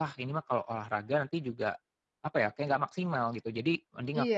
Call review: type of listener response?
taking over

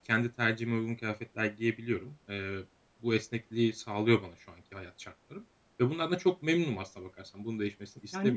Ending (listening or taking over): taking over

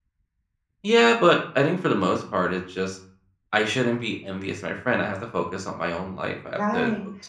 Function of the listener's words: taking over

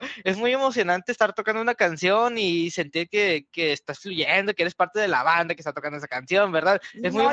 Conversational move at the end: taking over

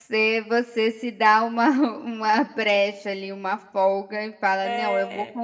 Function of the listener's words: listening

